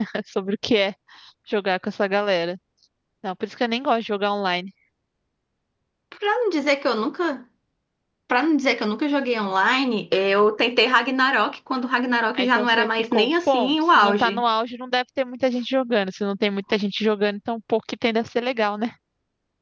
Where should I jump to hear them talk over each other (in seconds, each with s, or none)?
12.4 s